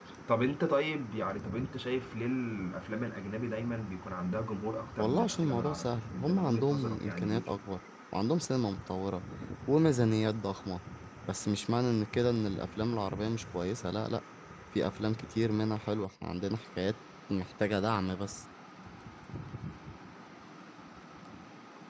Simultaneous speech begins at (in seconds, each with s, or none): 5.0 s